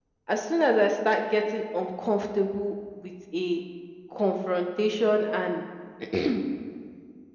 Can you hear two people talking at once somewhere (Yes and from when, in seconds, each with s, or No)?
No